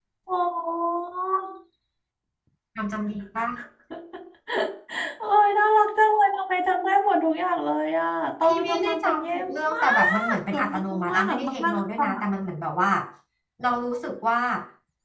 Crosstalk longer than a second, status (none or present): present